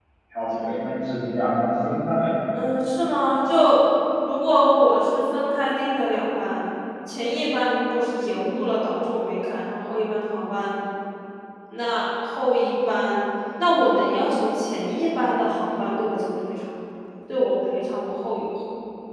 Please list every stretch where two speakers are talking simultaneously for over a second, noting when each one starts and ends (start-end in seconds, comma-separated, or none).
none